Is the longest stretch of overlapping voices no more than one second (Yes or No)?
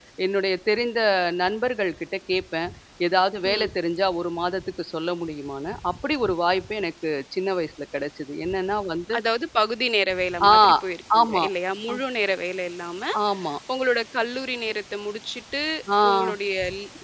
Yes